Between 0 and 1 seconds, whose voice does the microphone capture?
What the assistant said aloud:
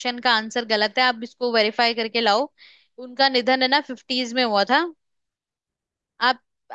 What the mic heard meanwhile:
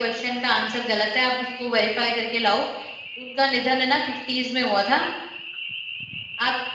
echo only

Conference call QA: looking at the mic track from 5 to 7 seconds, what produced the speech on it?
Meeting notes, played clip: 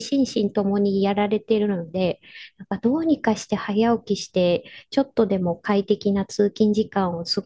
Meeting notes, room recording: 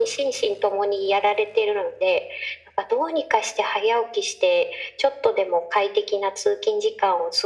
echo only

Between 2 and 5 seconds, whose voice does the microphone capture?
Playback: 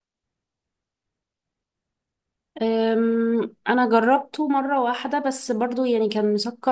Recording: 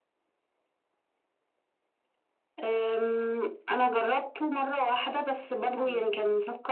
echo only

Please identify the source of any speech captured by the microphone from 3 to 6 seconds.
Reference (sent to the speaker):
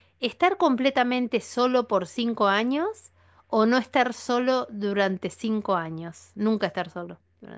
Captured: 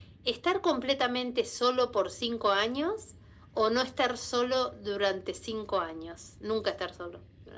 echo only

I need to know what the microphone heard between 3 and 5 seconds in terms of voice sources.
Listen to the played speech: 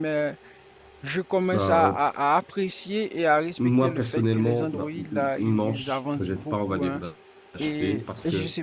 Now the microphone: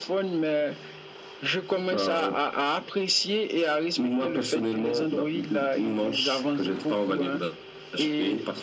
echo only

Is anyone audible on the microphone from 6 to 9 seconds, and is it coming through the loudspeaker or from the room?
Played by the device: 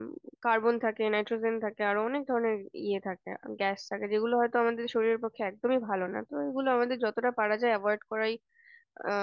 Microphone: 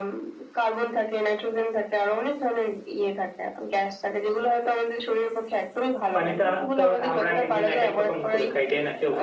both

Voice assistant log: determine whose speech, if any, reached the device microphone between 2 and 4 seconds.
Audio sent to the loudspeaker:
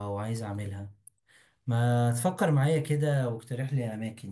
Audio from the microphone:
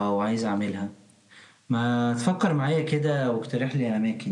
echo only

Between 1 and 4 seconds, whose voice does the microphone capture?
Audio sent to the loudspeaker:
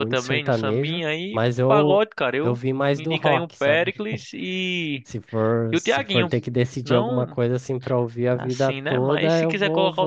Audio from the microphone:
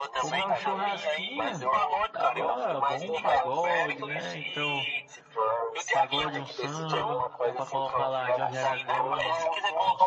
both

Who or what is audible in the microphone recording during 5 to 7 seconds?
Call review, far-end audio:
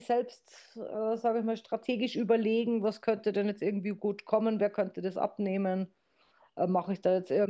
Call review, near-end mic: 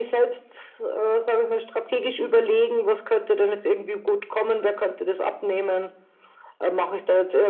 echo only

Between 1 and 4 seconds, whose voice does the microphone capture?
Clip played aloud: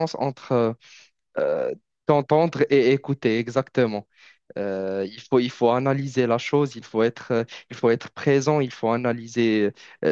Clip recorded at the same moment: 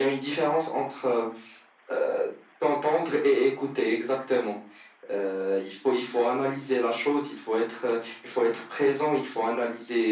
echo only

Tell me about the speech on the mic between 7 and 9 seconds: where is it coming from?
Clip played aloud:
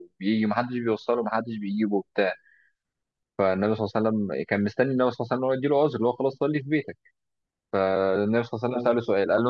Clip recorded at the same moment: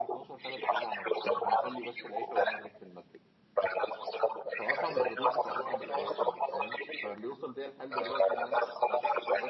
both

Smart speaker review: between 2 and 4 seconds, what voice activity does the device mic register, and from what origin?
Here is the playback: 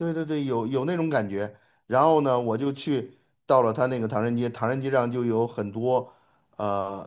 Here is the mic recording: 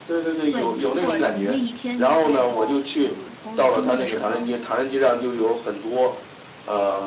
both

